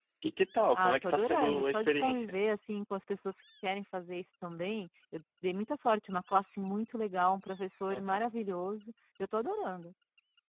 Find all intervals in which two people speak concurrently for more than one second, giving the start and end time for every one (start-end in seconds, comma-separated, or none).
0.7-2.3